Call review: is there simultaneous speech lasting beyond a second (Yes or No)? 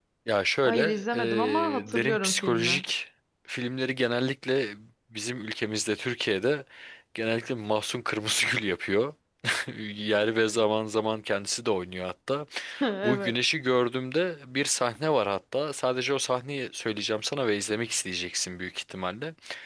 Yes